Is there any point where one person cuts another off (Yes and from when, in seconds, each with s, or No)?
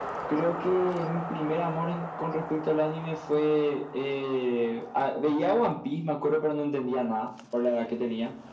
No